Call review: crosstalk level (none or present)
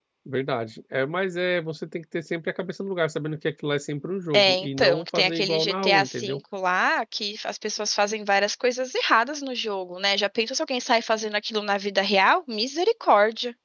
present